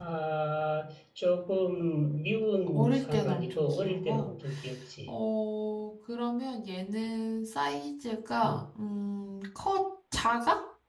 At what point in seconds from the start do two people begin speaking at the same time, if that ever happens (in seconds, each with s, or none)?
2.7 s